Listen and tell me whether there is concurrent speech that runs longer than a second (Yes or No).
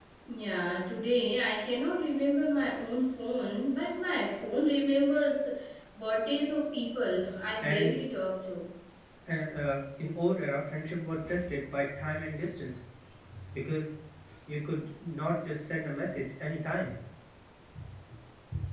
No